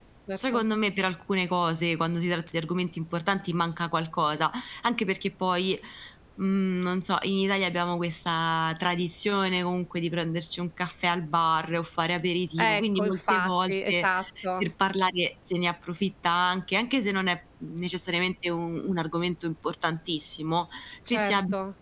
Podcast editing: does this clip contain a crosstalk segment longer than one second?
Yes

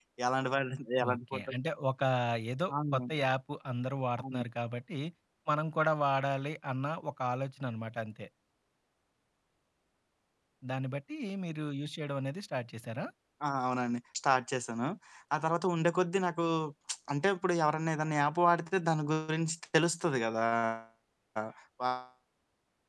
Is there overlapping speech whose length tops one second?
No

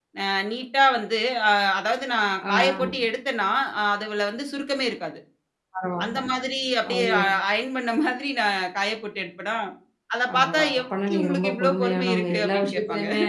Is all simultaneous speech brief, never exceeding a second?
No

